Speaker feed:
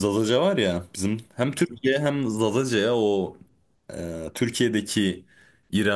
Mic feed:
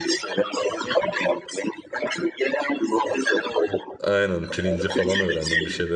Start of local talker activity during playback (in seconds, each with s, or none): 4.0 s